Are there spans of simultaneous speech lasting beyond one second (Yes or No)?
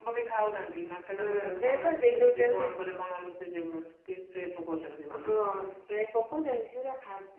Yes